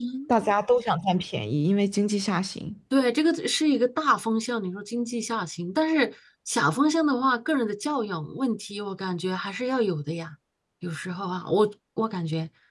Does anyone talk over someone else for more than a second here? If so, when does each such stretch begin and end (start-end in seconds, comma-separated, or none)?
none